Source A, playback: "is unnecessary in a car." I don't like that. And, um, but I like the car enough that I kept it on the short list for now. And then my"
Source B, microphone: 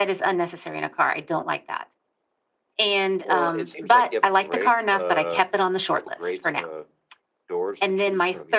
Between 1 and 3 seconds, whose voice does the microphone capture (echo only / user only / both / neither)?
echo only